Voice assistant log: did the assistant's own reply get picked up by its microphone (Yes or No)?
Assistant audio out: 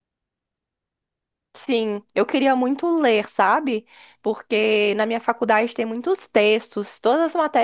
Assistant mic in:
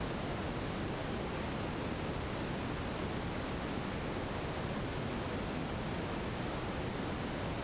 No